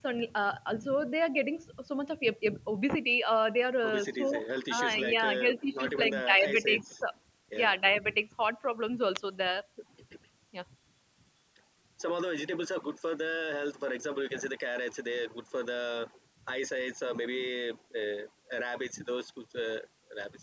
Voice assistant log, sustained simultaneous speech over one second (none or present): present